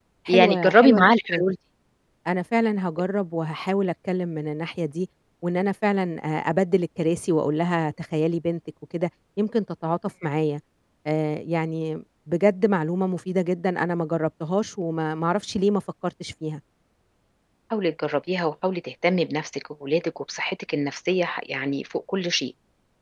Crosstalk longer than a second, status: present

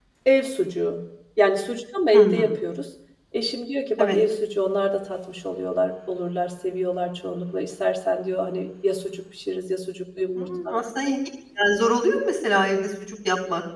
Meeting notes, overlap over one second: none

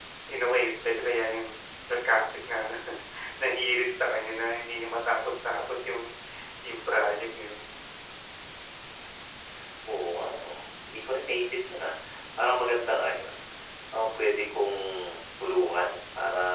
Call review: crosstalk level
none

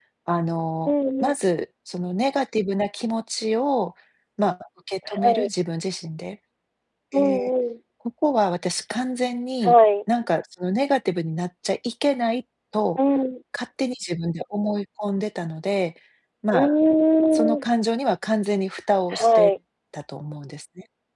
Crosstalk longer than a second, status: none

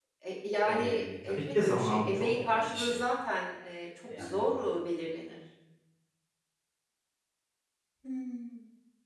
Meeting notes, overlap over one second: present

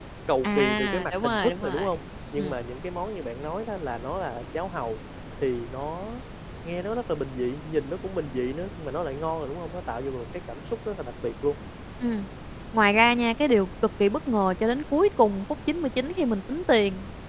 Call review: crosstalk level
present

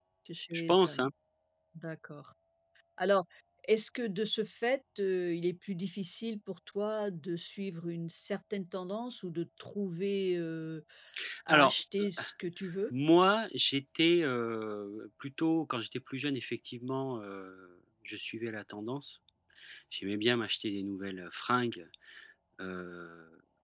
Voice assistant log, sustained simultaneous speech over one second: none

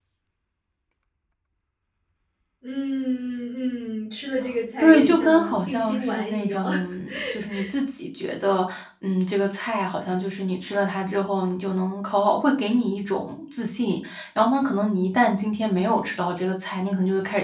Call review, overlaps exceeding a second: present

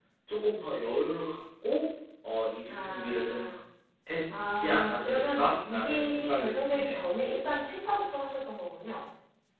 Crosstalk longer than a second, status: present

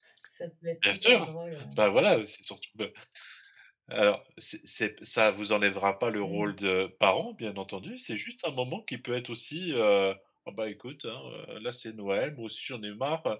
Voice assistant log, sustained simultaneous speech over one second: none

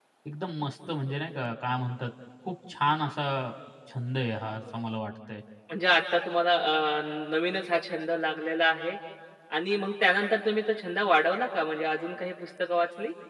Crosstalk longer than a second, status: none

